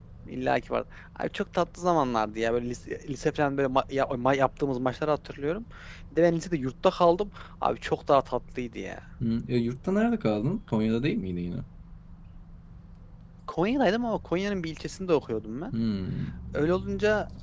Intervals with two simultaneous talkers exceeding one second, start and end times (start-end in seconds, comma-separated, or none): none